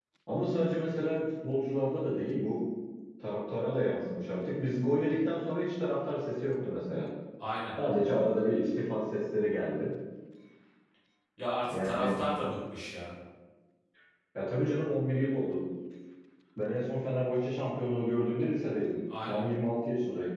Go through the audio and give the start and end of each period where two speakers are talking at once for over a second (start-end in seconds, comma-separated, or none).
none